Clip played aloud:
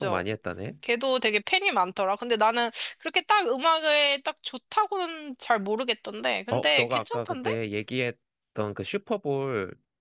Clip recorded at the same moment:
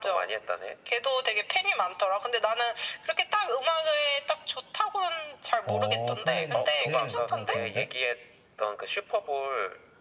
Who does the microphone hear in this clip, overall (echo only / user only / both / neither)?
both